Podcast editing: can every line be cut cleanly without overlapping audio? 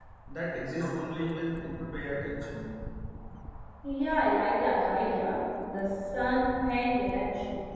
Yes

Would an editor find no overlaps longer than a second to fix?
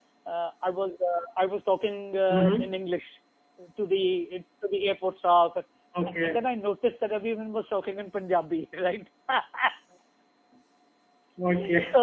Yes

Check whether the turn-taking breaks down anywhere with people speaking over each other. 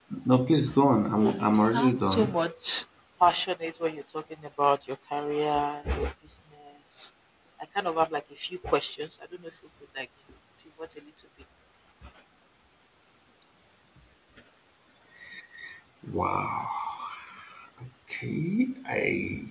Yes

